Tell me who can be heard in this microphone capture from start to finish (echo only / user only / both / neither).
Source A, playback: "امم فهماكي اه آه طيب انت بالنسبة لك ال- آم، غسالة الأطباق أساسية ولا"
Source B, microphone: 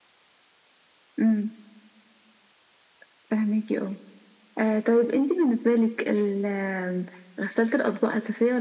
echo only